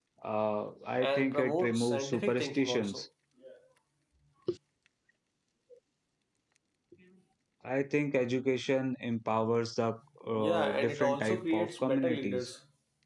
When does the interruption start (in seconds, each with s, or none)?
1.0 s